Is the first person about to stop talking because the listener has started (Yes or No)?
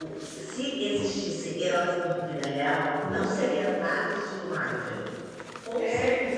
Yes